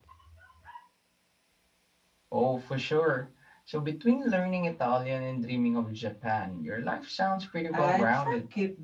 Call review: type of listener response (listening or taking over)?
taking over